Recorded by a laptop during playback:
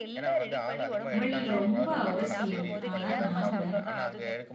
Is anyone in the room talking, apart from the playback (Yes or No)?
Yes